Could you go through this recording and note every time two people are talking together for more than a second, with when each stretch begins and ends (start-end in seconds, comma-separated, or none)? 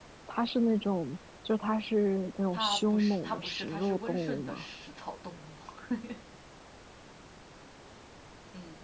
2.5-4.6